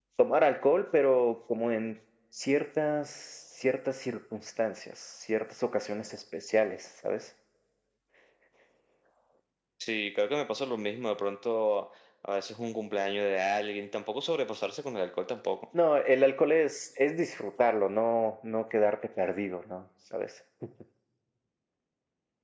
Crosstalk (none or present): none